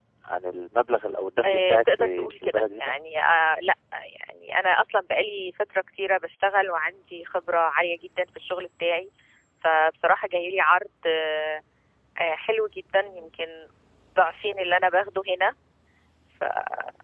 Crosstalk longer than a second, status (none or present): present